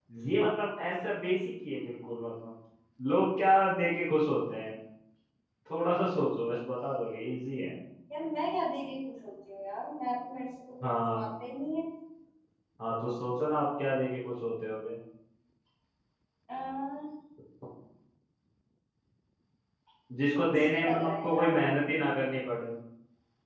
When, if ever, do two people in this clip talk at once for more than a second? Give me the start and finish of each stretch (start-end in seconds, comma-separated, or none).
20.3-21.6